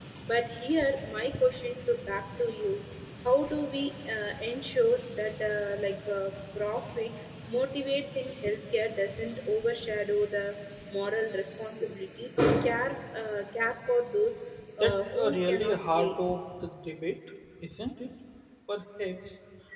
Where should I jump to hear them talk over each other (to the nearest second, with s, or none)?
15 s